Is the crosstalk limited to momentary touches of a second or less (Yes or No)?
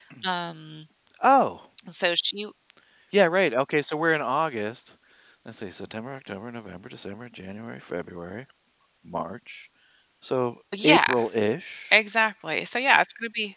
Yes